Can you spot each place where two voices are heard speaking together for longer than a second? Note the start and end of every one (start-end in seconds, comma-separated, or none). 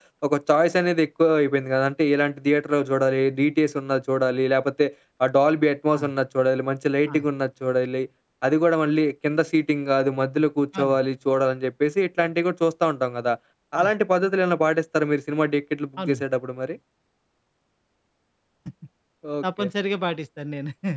none